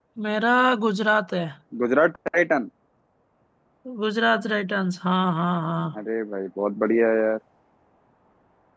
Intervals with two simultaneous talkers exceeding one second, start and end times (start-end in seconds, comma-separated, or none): none